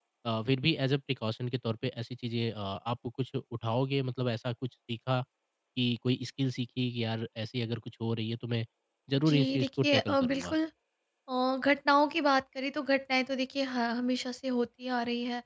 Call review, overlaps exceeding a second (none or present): present